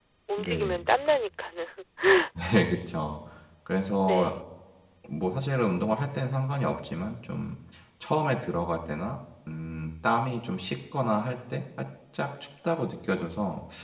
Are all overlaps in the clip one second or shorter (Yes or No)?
Yes